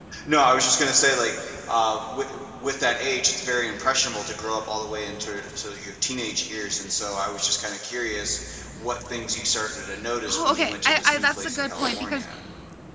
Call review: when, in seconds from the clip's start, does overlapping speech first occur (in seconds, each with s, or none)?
10.3 s